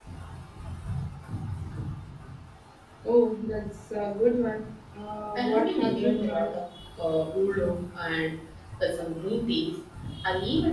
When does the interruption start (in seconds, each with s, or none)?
5.4 s